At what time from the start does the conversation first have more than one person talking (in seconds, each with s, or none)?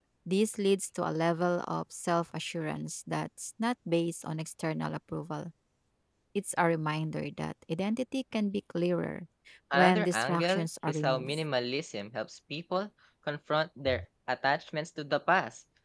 9.7 s